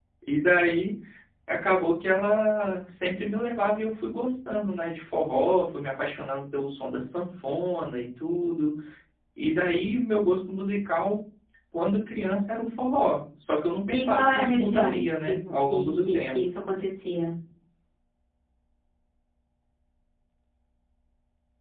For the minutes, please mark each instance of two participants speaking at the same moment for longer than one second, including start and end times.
14.0-16.4

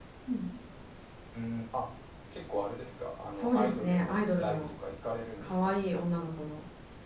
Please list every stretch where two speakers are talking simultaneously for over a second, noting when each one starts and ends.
3.4-4.7

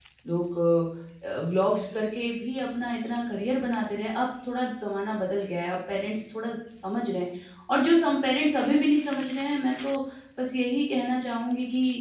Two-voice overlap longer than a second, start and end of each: none

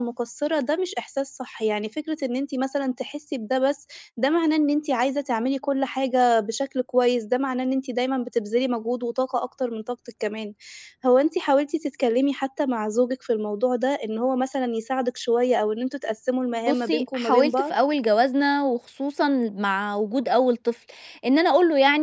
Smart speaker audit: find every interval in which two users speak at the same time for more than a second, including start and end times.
16.5-17.7

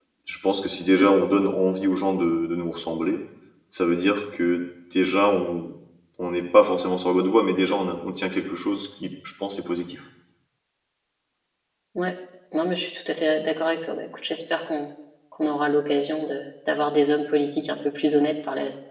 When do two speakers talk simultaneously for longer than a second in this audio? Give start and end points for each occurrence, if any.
none

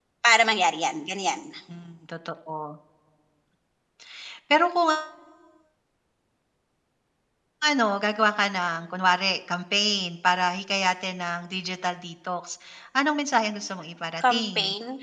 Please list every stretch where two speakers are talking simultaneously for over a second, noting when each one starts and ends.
none

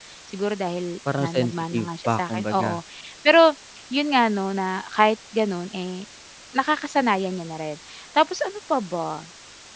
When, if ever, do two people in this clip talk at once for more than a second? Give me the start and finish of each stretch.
1.2-2.7

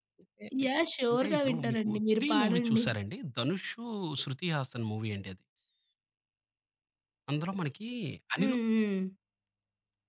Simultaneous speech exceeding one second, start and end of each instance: 1.1-2.8

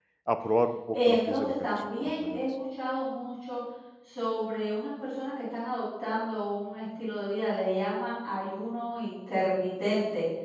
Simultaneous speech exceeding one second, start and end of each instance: 0.9-2.4

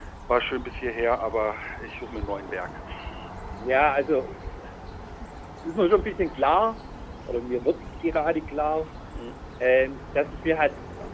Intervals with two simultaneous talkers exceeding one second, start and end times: none

